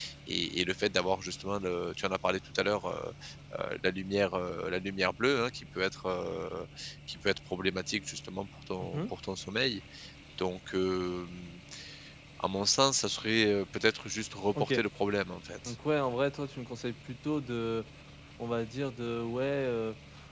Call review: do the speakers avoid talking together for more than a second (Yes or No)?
Yes